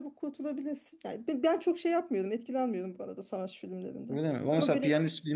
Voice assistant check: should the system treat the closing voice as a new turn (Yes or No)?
Yes